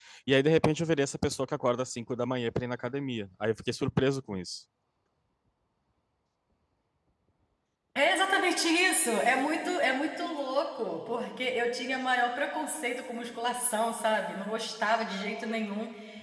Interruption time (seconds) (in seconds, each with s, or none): none